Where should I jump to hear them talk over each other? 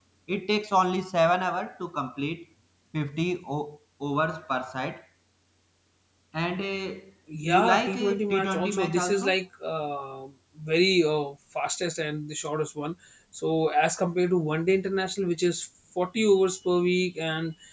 7.4 s

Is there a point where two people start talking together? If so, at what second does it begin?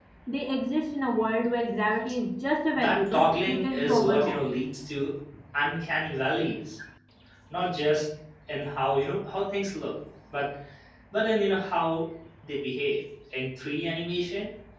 2.8 s

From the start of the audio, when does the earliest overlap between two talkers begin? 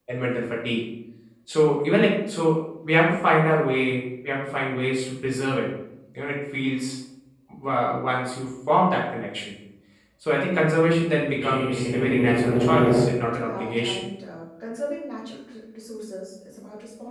11.3 s

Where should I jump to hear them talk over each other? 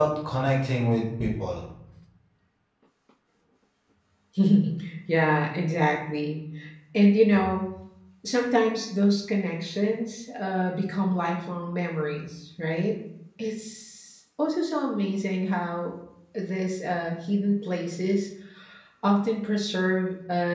none

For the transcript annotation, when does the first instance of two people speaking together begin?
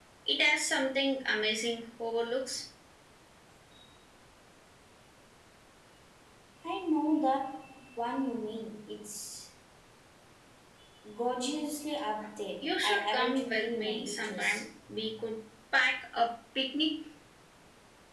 12.6 s

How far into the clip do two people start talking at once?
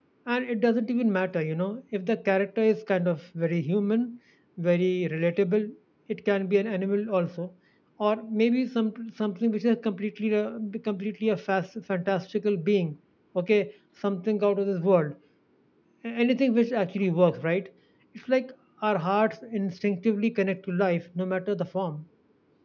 none

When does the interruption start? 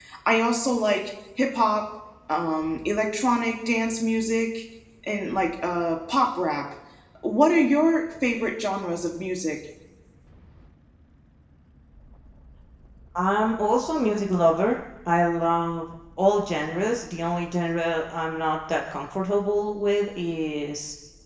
none

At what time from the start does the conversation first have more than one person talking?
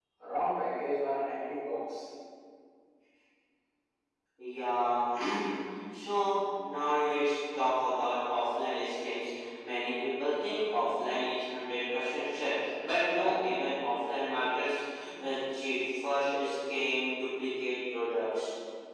none

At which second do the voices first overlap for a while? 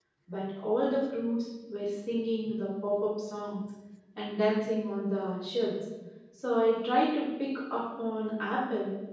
none

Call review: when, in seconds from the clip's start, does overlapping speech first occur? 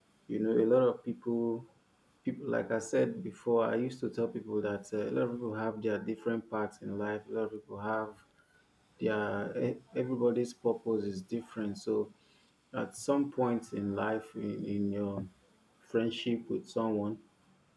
none

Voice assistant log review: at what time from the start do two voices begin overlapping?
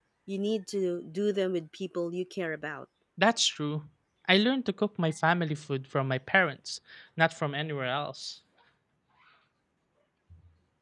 none

